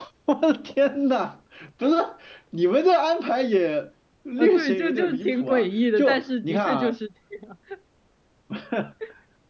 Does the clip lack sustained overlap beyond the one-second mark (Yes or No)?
No